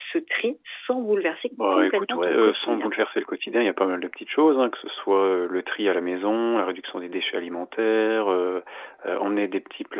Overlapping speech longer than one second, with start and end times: 1.7-2.9

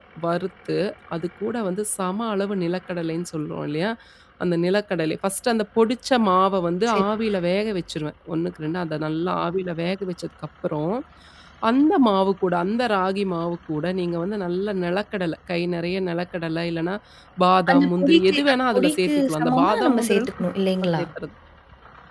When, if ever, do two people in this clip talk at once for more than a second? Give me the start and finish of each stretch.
17.7-20.3

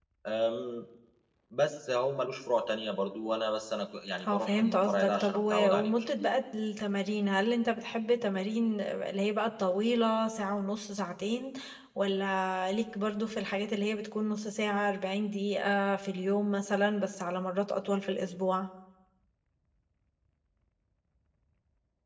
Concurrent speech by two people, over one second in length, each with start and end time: 4.2-6.1

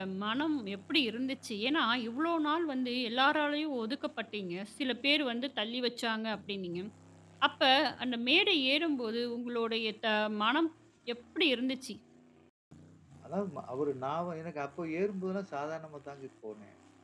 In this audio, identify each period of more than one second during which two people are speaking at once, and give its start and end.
none

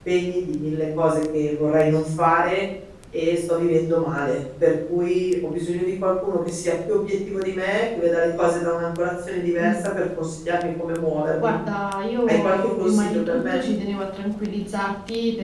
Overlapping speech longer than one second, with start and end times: 12.3-13.6

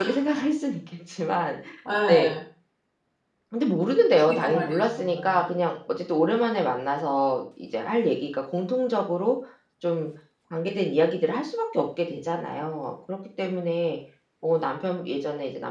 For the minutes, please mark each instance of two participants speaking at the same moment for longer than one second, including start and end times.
4.2-5.5

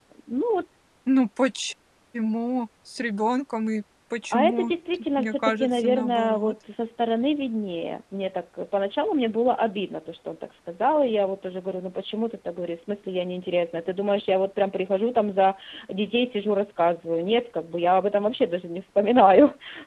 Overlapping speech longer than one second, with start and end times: 4.3-6.5

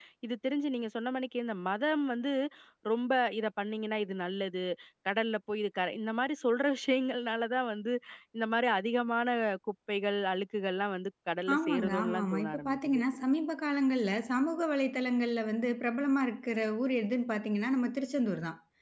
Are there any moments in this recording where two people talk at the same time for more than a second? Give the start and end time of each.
11.6-13.0

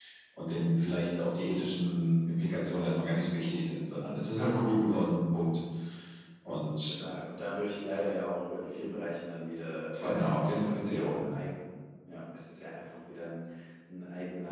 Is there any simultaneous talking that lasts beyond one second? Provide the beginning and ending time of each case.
10.0-11.2

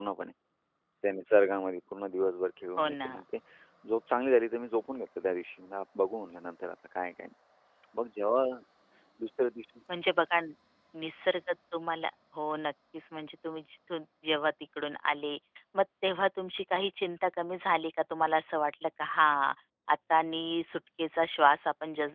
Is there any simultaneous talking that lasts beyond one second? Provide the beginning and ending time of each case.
none

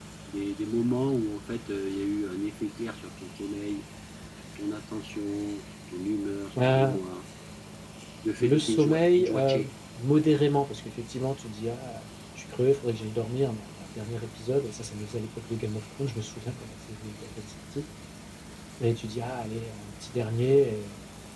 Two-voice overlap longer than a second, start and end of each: 8.4-9.7

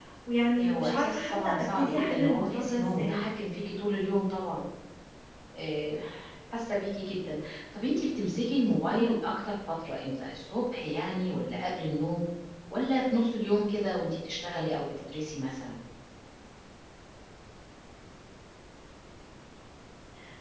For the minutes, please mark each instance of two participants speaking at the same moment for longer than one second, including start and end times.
0.6-3.3

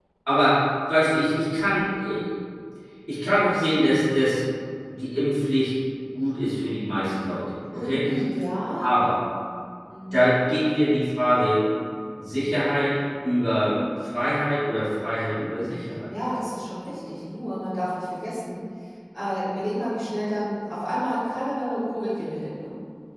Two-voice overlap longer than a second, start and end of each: none

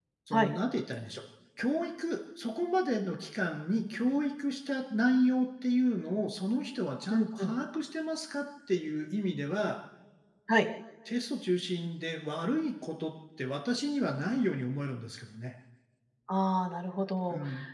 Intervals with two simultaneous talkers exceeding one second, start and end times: none

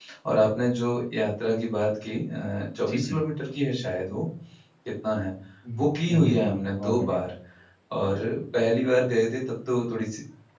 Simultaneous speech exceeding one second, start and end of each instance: 5.8-7.2

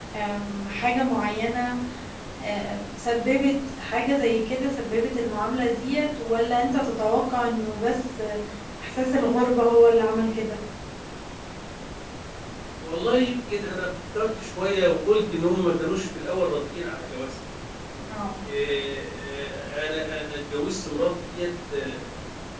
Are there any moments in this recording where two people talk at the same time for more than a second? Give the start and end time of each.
none

